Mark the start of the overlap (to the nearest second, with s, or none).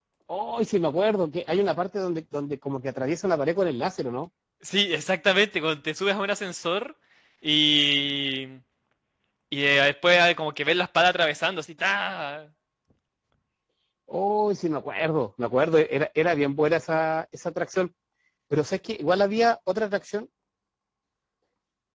none